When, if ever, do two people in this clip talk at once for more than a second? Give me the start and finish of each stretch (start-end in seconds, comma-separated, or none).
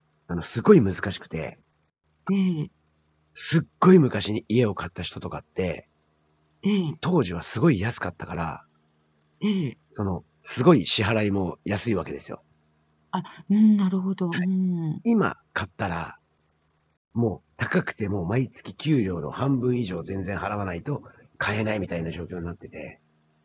none